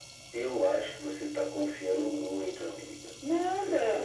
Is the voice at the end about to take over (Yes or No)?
Yes